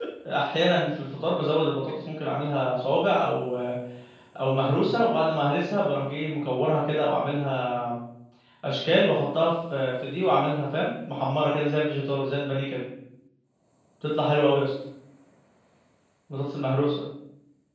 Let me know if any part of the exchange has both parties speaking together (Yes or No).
No